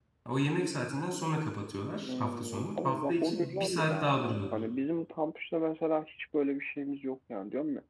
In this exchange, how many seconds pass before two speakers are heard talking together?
2.0 s

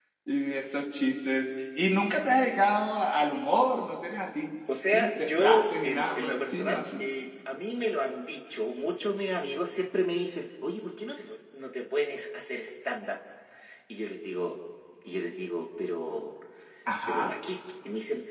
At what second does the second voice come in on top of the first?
4.9 s

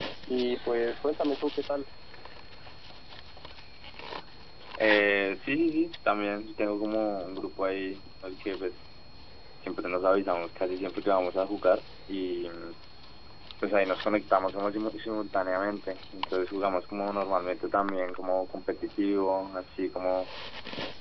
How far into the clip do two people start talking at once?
none

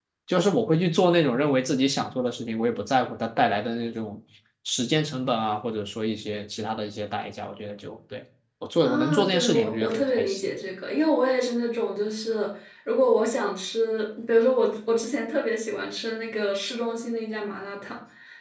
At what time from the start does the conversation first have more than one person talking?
8.8 s

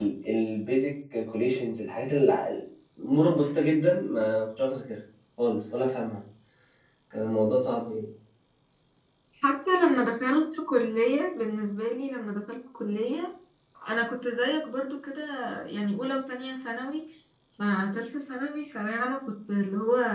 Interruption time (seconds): none

